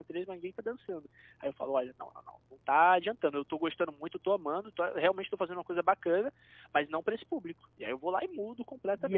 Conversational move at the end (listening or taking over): taking over